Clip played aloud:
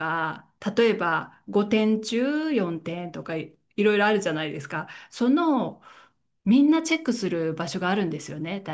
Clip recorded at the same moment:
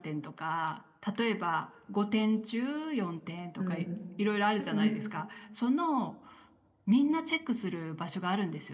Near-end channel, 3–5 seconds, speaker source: both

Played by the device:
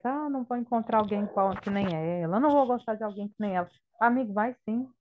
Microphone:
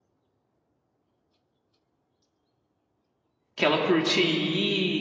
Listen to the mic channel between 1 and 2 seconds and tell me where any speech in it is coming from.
neither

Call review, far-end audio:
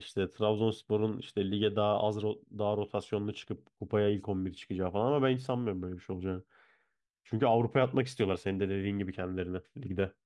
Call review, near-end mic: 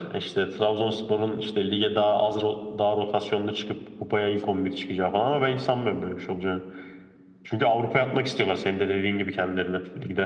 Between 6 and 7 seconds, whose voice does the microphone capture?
echo only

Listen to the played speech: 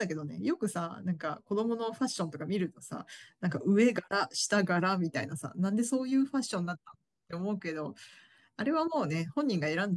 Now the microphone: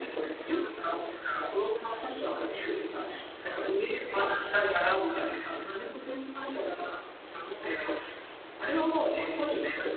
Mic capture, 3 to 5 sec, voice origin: echo only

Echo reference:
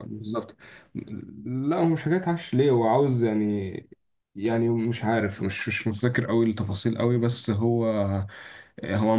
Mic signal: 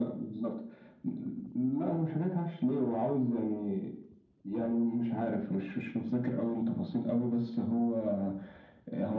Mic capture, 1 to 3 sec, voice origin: echo only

